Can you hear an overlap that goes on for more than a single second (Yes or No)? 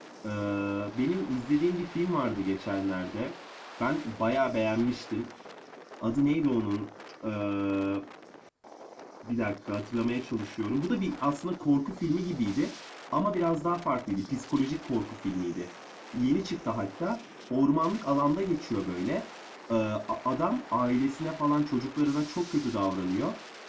No